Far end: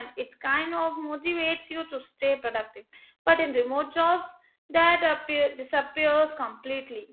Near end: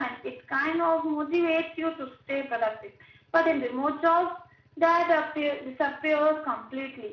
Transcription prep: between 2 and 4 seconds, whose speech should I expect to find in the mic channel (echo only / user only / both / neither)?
echo only